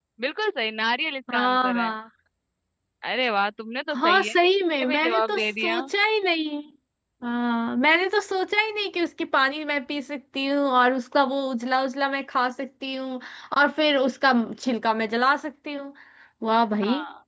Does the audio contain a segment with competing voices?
Yes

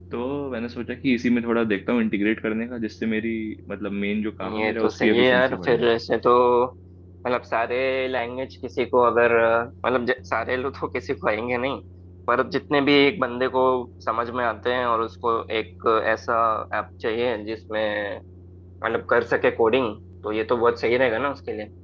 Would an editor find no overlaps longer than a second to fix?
No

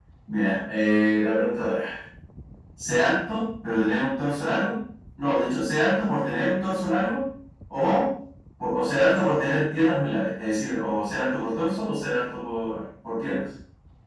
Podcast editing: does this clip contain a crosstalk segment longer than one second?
No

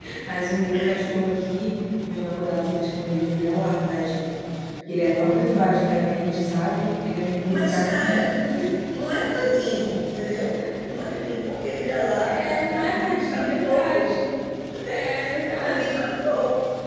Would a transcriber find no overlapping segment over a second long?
No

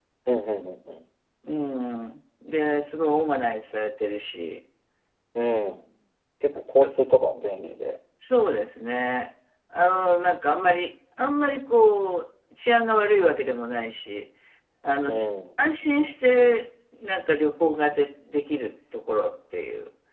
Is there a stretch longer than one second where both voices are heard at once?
No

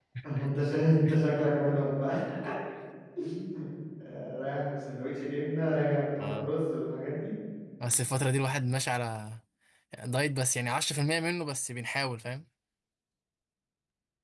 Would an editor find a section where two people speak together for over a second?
No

